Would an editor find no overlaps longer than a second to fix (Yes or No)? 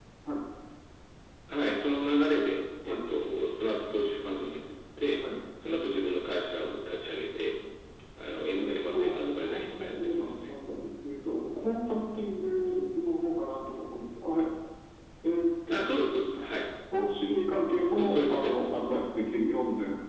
No